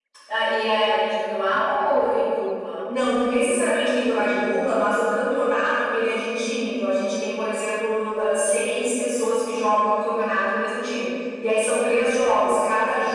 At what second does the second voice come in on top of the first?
none

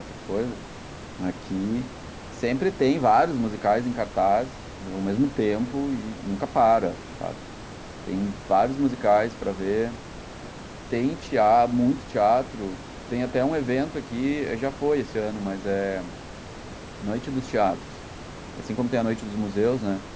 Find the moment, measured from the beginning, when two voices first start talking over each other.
none

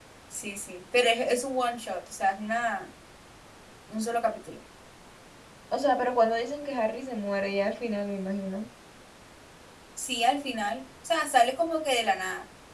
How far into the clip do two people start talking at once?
none

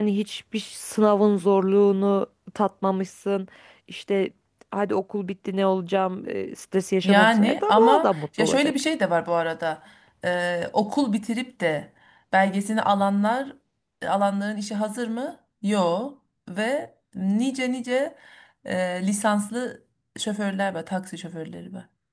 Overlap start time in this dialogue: 7.0 s

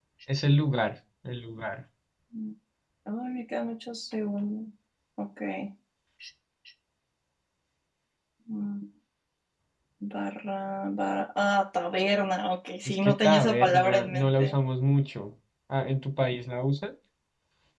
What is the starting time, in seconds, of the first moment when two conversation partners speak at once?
12.8 s

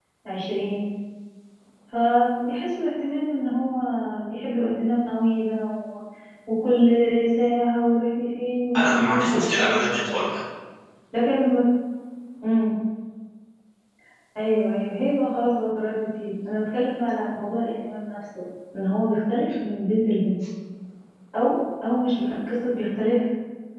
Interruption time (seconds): 8.7 s

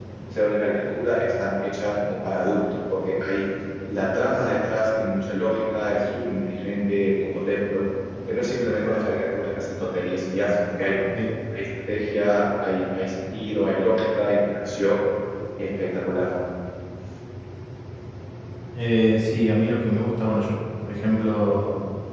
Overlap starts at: none

